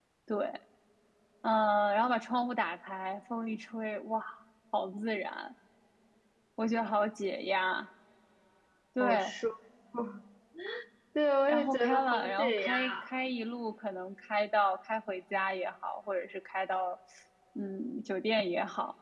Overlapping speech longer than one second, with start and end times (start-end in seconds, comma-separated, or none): 11.5-13.1